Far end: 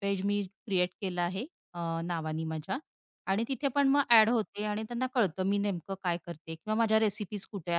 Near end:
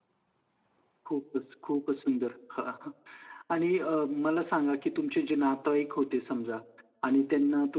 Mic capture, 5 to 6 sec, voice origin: user only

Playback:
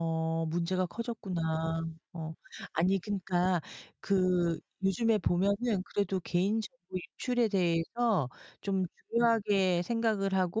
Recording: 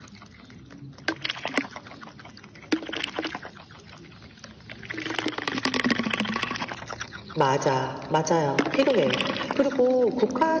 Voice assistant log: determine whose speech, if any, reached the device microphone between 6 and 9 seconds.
user only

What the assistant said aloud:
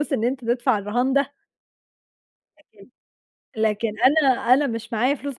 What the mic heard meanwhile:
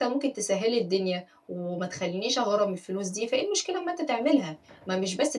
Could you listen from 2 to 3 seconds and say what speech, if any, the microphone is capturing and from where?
user only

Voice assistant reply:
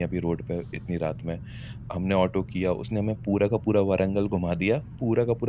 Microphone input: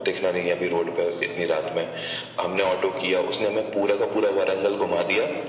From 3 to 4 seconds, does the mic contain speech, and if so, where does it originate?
echo only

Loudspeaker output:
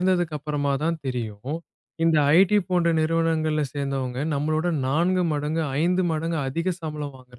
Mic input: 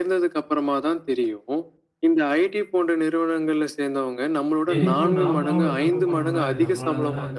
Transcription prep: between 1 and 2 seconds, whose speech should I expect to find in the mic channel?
echo only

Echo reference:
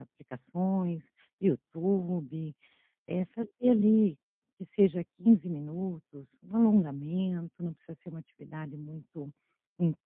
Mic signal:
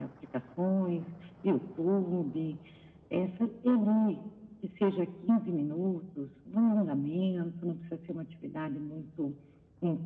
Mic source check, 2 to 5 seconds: echo only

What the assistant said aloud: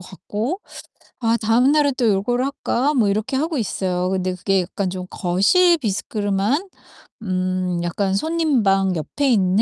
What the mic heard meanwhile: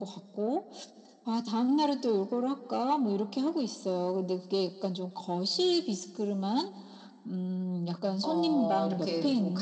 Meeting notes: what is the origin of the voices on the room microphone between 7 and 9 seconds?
both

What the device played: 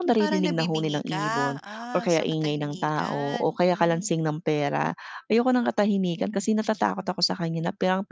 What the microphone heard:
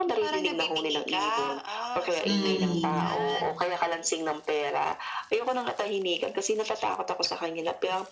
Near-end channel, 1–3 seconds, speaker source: both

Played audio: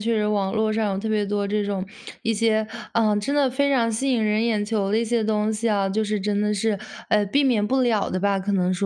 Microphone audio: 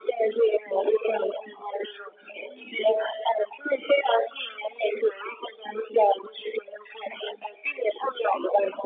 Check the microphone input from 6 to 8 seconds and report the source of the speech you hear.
echo only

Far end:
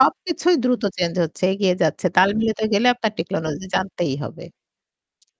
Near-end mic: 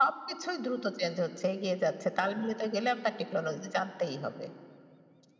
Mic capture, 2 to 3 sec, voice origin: echo only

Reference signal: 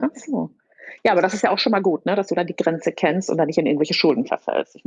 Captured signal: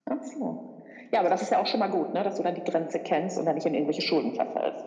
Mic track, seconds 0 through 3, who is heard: echo only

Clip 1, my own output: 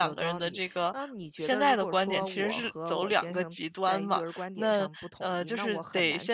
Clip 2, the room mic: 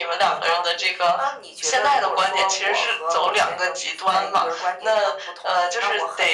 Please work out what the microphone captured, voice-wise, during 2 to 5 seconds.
echo only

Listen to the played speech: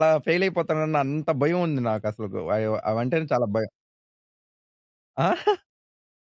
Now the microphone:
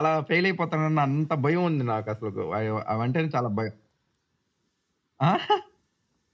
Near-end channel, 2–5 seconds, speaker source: echo only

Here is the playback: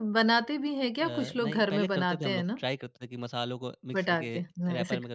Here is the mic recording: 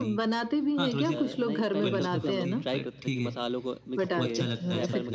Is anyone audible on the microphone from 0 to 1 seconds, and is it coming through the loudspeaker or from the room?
both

